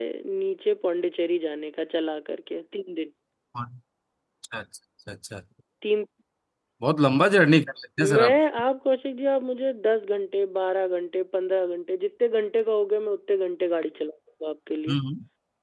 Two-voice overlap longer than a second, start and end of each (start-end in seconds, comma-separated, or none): none